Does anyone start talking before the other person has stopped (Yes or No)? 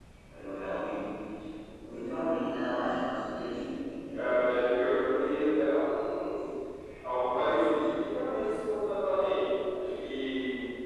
Yes